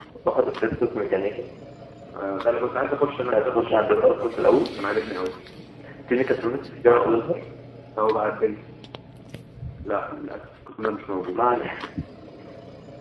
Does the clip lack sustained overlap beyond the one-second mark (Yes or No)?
No